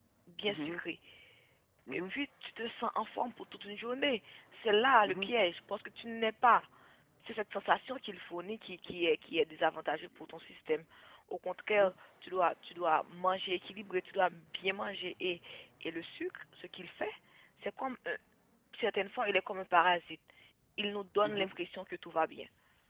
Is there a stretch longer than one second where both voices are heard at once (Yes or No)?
No